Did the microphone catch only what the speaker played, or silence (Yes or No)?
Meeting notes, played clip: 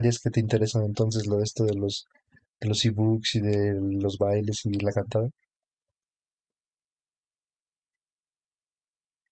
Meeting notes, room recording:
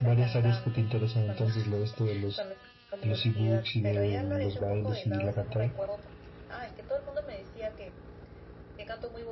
No